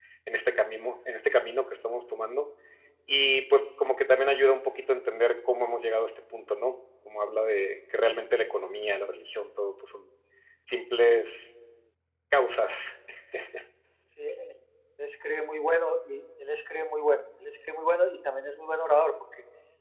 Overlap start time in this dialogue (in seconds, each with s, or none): none